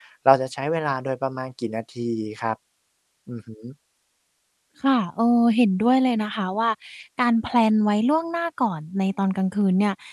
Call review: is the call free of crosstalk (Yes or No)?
Yes